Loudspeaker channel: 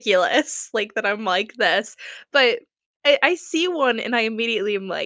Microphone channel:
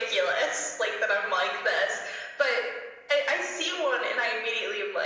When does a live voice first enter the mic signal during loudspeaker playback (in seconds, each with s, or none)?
none